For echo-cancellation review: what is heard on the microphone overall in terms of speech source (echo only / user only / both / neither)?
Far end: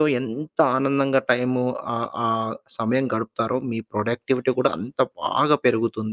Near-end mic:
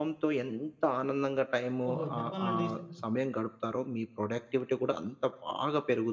both